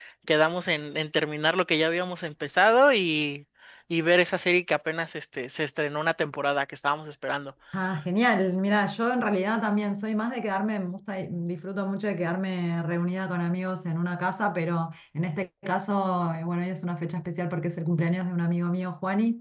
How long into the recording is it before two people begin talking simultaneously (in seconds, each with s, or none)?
none